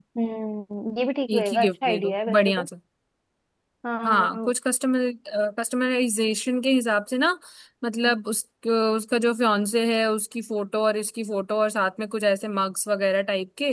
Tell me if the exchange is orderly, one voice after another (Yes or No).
No